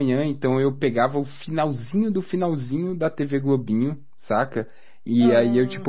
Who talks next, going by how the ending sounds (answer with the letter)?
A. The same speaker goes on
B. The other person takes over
A